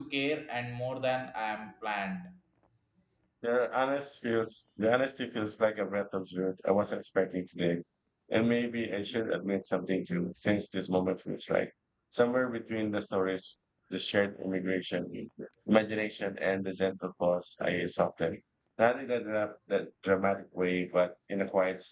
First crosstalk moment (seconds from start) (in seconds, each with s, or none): none